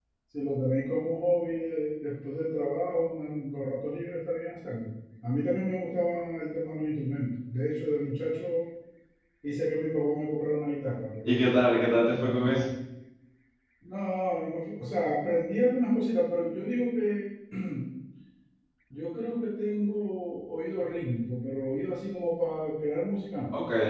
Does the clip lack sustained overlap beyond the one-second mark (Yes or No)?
Yes